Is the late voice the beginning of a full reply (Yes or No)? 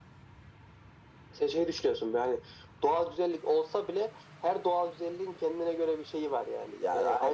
Yes